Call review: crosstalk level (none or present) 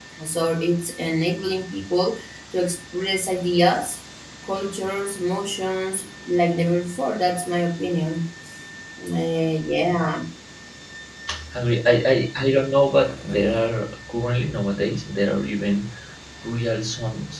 none